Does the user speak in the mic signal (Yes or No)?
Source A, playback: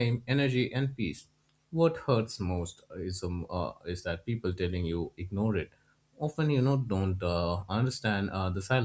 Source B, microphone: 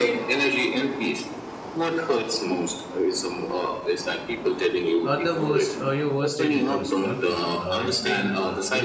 Yes